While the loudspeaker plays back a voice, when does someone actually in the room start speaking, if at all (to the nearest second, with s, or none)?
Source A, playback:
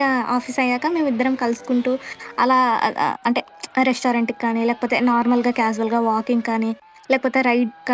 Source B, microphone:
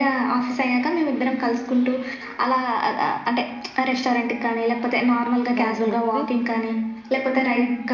6 s